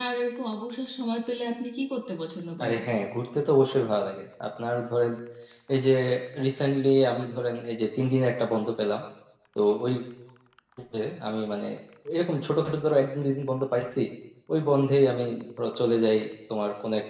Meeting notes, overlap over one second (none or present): none